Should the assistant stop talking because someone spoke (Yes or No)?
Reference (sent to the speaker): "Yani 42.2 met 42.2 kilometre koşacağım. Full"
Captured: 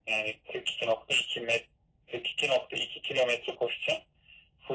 No